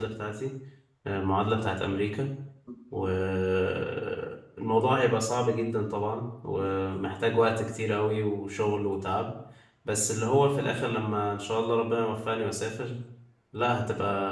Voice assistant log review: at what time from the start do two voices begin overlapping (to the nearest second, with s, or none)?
none